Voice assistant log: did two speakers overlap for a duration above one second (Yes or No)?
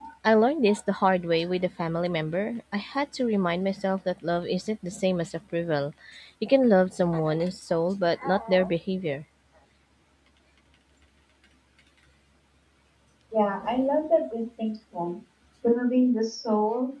No